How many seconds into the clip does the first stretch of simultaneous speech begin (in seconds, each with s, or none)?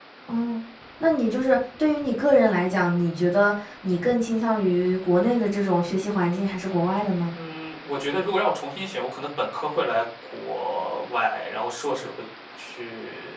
none